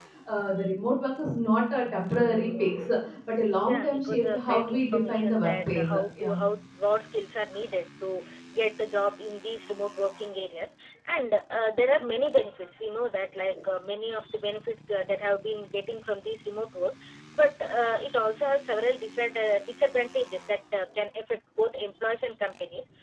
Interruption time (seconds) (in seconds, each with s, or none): 3.7 s